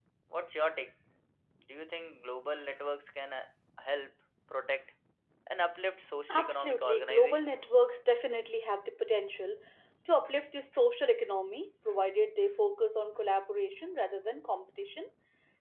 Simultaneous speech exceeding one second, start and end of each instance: 6.3-7.6

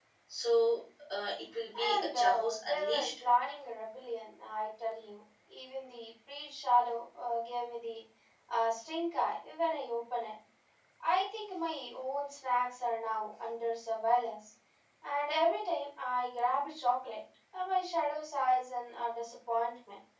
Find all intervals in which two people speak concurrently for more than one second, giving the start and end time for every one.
1.8-3.1

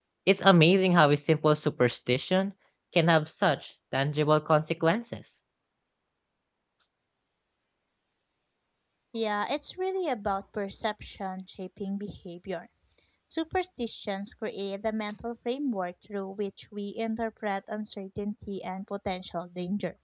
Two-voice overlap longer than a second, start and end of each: none

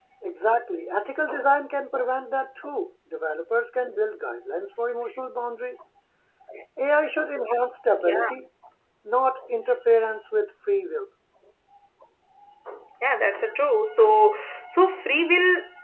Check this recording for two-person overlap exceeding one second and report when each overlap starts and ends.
none

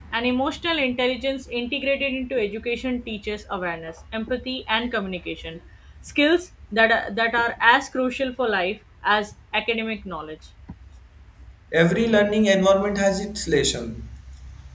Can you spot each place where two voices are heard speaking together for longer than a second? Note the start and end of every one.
none

